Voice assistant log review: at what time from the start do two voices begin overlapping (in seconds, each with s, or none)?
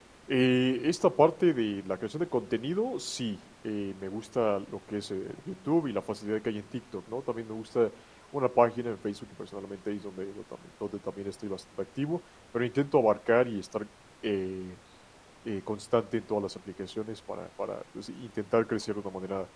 none